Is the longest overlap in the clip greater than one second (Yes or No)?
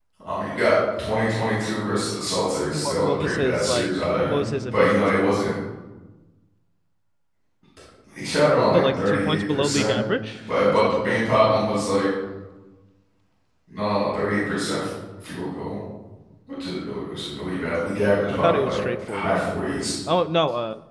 Yes